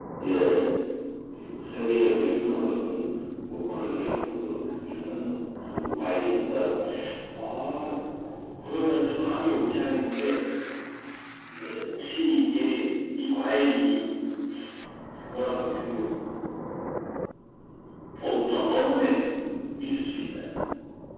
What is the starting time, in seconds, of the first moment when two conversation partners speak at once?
none

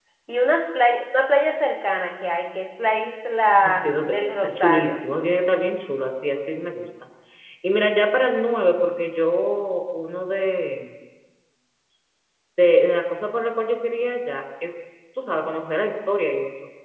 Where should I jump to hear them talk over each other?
4 s

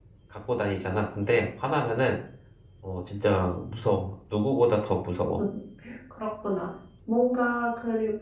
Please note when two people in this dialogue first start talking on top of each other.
none

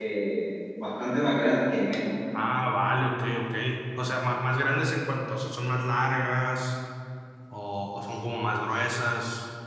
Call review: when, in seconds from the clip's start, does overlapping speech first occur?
none

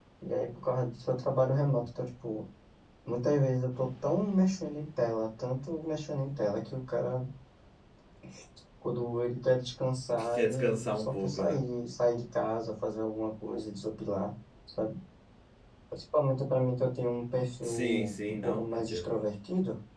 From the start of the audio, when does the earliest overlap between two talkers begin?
10 s

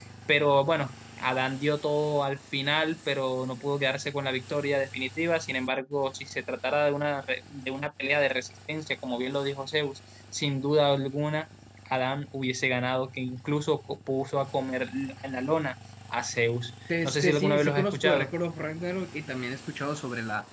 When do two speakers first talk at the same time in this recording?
17 s

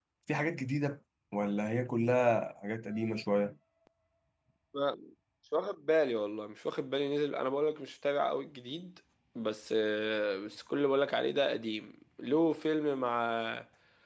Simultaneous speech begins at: none

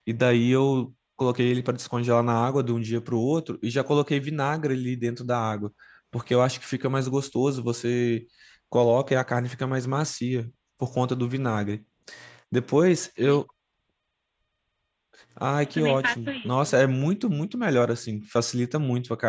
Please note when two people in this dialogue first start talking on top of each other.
16 s

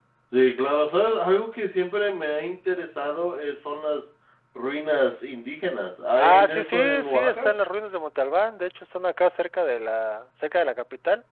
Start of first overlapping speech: 6 s

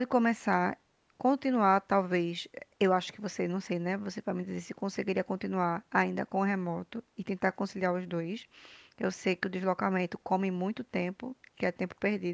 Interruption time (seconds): none

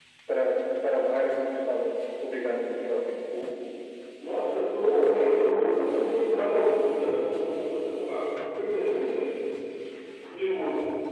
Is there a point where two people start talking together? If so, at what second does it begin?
none

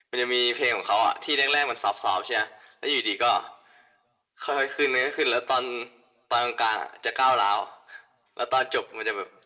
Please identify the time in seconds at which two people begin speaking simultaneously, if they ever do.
none

